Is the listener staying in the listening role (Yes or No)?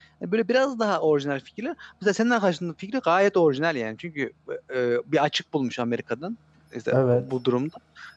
Yes